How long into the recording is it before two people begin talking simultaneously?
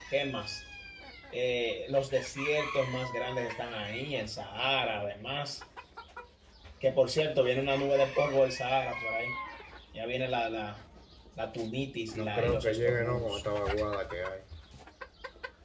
12.1 s

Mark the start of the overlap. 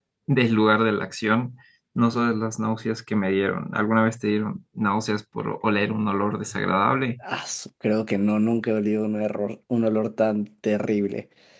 none

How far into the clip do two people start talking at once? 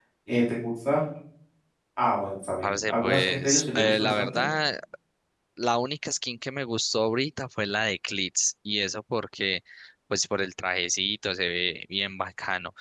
2.6 s

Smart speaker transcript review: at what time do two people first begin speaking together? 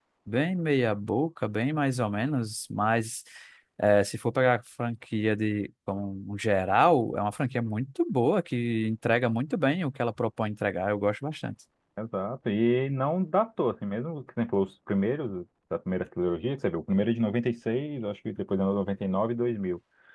none

